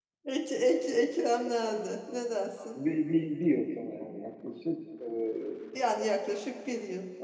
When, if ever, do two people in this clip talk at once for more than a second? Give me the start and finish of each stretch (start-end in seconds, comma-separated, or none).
none